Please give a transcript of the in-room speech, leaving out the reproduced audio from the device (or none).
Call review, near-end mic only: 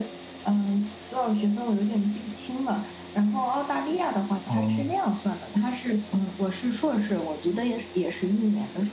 啊。